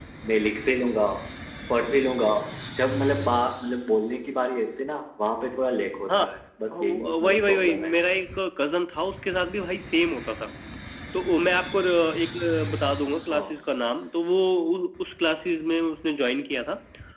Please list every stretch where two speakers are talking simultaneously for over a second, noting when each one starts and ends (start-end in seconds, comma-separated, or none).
6.7-7.9